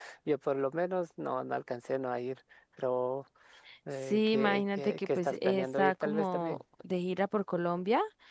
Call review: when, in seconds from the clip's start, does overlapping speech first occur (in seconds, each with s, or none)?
4.1 s